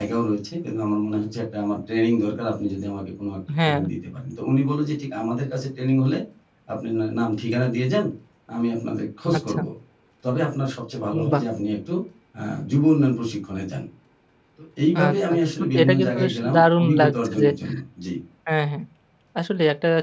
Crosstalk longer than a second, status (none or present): present